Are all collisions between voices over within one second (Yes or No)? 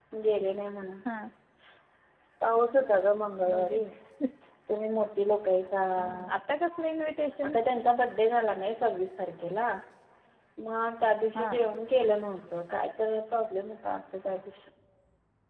Yes